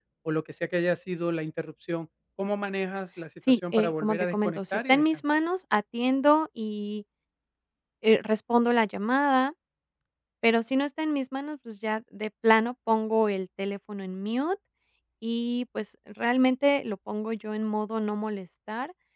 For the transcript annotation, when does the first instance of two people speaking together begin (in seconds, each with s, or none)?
3.5 s